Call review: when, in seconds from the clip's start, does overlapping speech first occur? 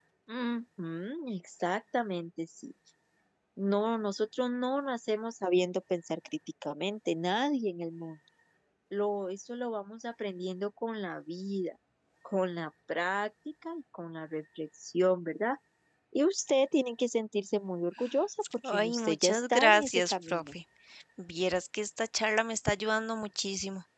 18.6 s

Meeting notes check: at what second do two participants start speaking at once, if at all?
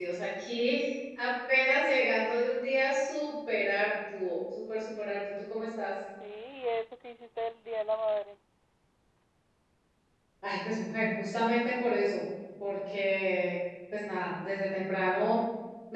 none

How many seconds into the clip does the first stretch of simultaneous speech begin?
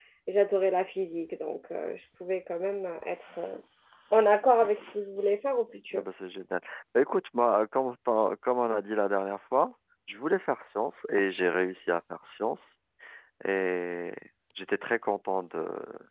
none

